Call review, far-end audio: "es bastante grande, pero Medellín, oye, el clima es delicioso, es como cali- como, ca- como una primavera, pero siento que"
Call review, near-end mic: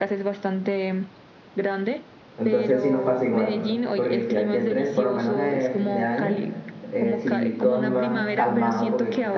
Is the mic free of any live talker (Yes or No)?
No